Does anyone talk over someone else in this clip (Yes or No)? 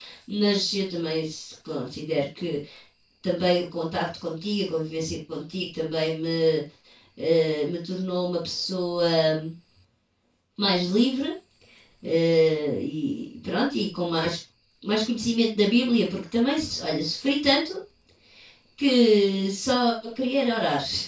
No